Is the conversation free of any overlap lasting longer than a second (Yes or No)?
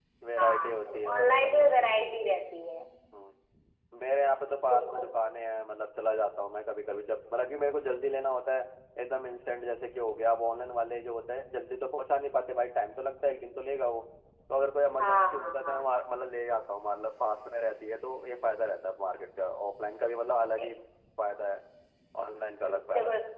No